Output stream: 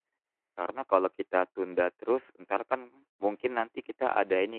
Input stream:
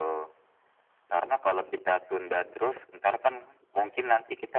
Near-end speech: none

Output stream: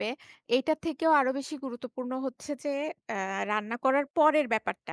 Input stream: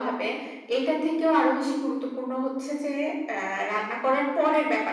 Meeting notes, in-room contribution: none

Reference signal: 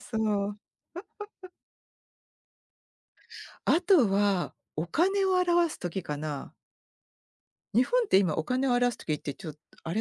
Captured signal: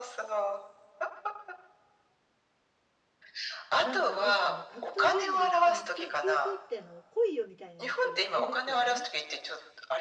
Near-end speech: present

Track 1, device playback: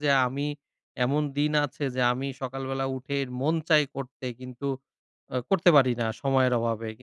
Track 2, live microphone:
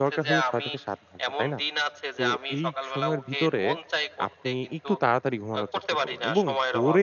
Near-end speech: present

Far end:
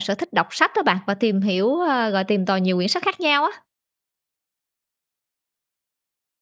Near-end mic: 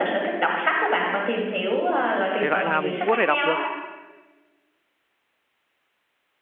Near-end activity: present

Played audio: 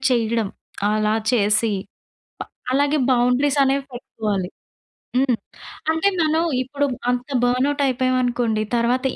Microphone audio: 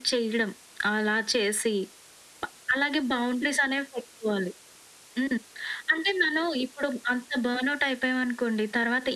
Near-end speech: none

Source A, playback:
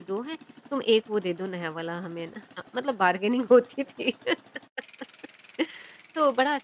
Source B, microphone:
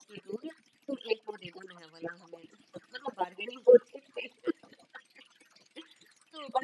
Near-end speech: none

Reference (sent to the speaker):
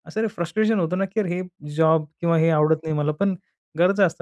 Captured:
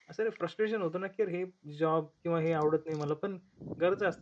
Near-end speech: none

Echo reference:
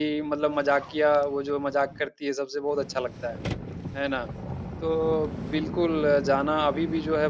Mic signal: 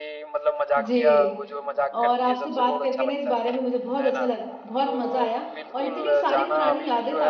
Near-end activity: present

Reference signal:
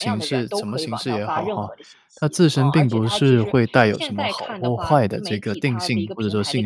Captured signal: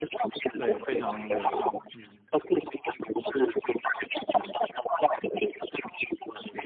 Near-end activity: present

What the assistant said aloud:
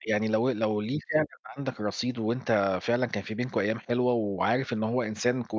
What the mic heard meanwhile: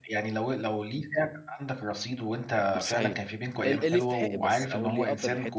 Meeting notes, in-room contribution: present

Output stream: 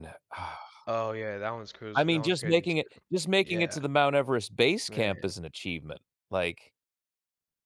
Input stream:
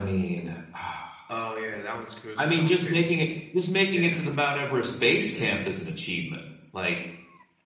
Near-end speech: none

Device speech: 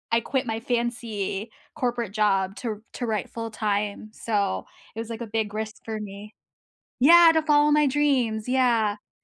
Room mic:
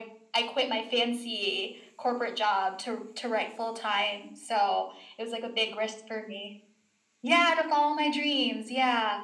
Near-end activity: none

